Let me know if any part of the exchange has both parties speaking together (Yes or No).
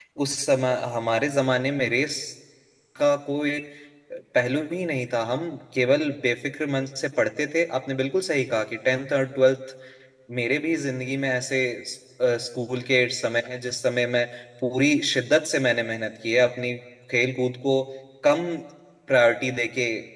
No